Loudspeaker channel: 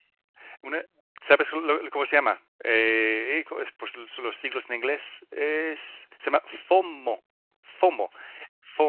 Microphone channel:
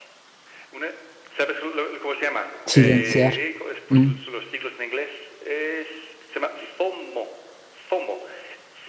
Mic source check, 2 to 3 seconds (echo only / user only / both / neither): both